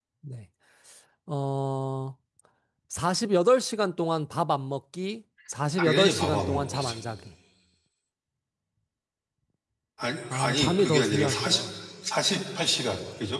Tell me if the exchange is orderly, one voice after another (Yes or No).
No